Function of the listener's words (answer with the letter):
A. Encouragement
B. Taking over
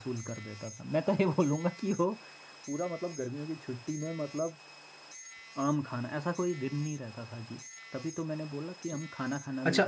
B